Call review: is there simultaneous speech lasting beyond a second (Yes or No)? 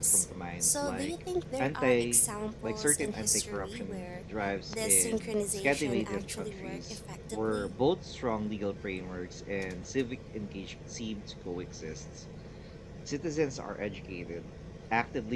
Yes